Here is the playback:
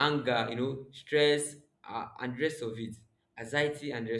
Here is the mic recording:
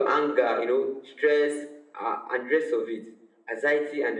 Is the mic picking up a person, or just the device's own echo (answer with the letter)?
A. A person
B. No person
B